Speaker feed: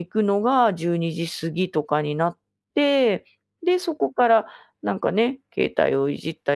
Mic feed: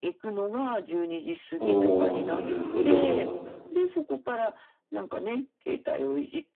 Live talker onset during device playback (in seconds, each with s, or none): 1.6 s